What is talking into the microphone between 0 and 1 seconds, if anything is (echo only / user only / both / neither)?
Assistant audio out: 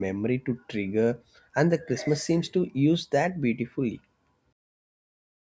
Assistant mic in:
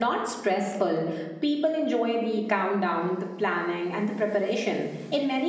user only